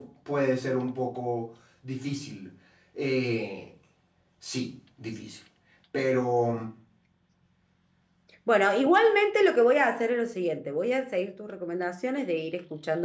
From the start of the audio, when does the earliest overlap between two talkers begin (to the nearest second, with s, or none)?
none